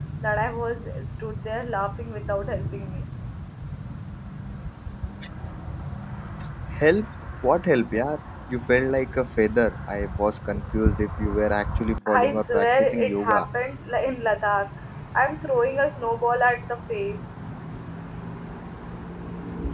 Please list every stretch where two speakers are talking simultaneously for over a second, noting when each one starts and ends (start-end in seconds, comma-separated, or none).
12.2-13.5